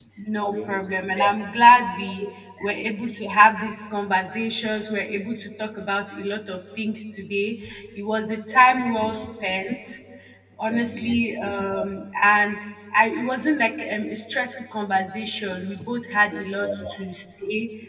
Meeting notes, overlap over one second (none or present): present